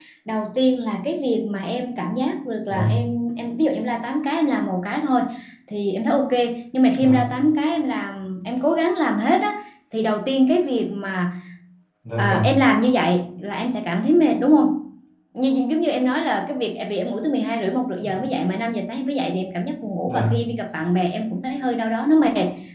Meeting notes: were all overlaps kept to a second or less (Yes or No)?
Yes